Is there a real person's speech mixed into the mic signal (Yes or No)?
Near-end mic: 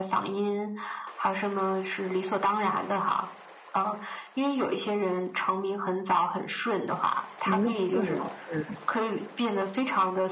Yes